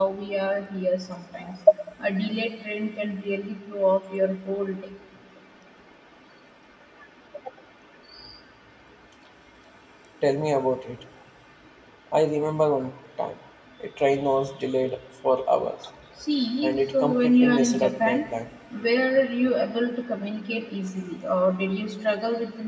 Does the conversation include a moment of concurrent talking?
Yes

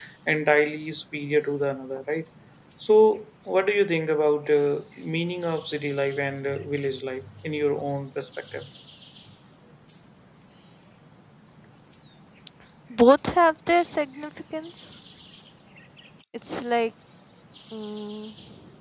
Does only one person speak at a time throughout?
Yes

